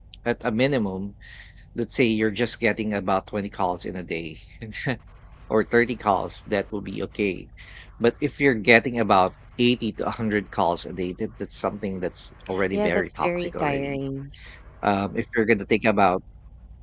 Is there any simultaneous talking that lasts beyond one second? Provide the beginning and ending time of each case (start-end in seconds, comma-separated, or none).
12.7-14.0